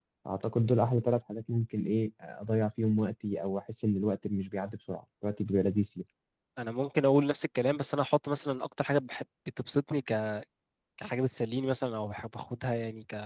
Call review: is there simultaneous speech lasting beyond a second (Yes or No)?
No